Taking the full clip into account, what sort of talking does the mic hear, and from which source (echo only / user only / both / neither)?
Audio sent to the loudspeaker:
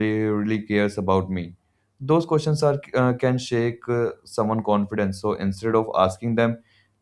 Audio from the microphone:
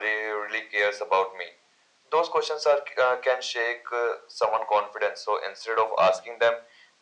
echo only